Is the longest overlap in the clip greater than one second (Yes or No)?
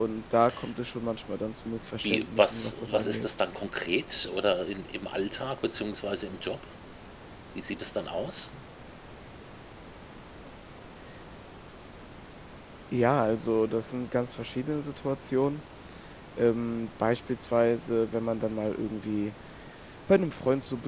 Yes